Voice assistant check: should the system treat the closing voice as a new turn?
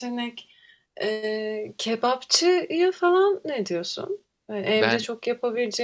No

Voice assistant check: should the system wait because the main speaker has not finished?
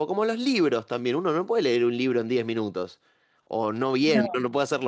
Yes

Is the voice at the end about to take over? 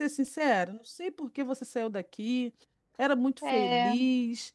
No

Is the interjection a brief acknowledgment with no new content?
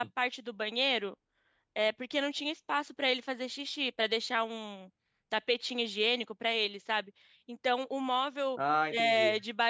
Yes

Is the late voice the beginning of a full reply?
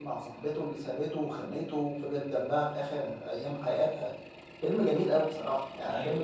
No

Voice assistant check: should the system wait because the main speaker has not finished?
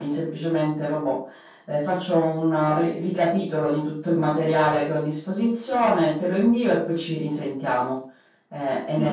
No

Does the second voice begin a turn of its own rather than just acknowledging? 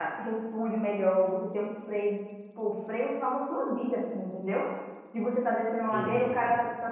No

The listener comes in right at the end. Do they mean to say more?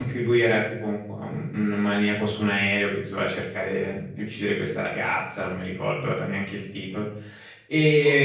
No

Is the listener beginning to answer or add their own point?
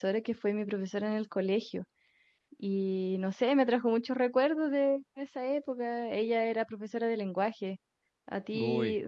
No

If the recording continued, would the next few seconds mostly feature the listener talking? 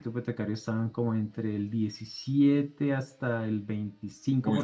Yes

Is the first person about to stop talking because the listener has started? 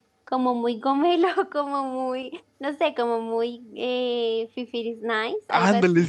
Yes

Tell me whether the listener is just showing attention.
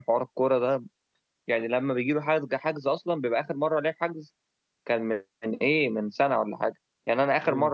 Yes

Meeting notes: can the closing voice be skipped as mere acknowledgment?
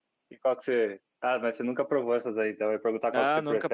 No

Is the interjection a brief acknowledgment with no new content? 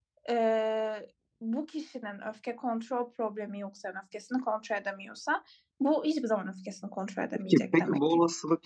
No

